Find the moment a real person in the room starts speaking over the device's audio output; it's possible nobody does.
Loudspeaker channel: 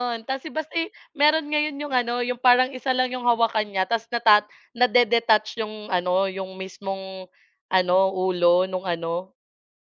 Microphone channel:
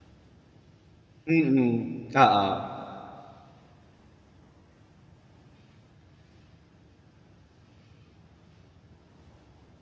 1.3 s

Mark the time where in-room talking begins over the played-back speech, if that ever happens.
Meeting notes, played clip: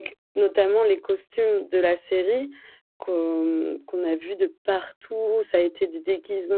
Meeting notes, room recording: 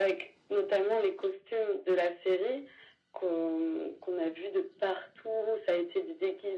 none

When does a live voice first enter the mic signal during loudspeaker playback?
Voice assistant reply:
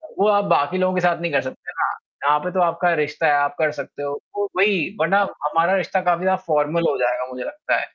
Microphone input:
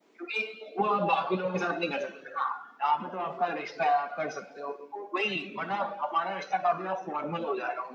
none

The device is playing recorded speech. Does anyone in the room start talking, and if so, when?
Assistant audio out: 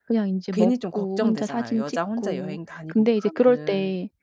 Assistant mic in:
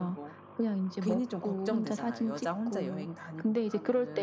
none

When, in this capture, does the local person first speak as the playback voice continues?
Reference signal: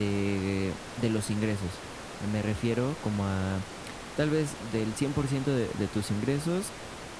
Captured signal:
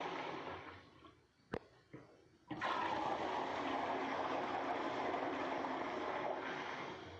none

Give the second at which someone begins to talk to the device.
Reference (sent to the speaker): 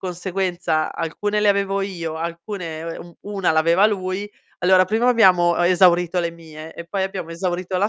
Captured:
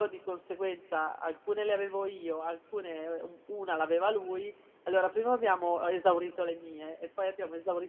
none

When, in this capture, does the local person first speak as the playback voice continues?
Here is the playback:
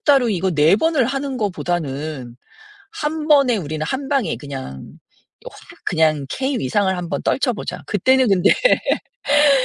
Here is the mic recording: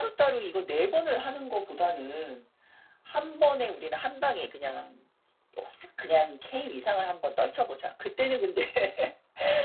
none

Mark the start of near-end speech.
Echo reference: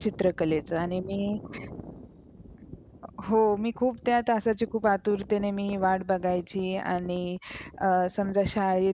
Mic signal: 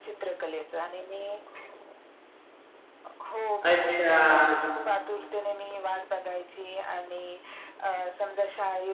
3.6 s

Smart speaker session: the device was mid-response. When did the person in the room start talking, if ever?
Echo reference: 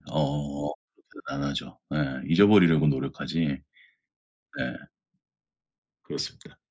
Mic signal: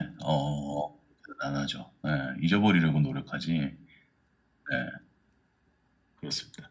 none

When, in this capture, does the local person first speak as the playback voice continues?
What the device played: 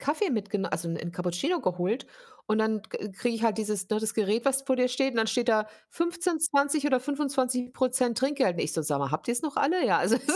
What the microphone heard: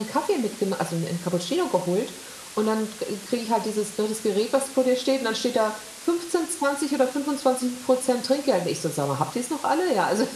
none

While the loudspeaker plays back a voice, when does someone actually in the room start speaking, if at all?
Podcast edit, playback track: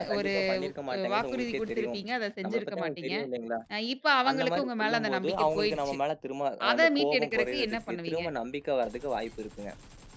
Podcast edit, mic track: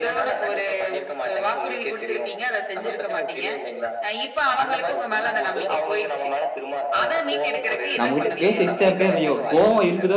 8.0 s

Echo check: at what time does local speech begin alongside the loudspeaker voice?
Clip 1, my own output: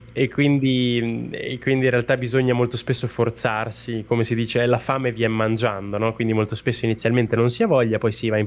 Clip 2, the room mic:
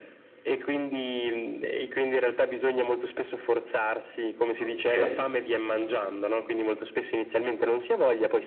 4.6 s

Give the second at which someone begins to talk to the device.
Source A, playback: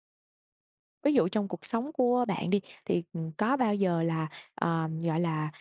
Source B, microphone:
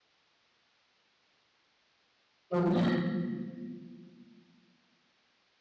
2.5 s

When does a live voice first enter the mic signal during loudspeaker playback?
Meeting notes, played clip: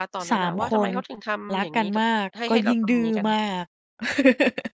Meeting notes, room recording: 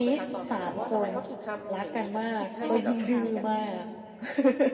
2.4 s

